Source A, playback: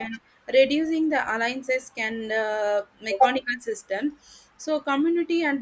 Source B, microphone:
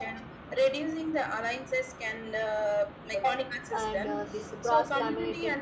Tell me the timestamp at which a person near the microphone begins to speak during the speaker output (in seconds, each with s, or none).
3.7 s